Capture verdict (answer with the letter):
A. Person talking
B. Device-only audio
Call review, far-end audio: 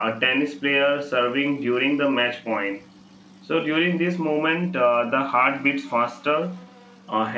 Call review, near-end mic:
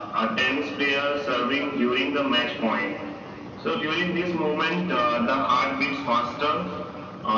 B